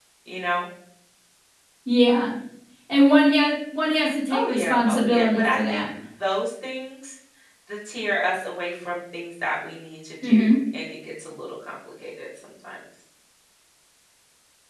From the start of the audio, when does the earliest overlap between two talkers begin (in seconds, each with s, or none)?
4.3 s